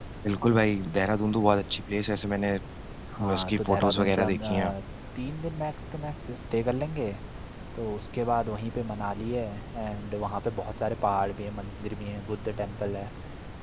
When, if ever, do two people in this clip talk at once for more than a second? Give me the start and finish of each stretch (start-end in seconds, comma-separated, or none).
3.3-4.7